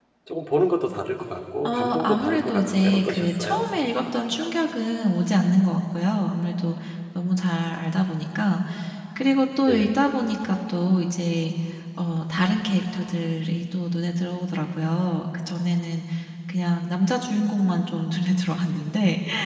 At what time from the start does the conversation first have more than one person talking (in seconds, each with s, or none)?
1.6 s